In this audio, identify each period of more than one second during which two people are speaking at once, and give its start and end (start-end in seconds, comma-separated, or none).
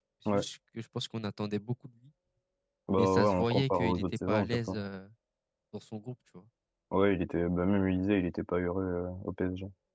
3.0-4.8